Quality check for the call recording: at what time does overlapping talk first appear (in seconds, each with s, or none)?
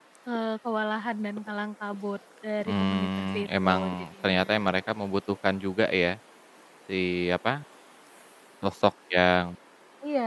2.6 s